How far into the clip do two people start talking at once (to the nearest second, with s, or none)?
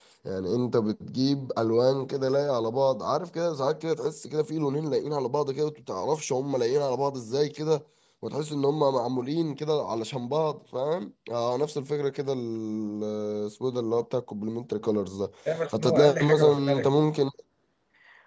16 s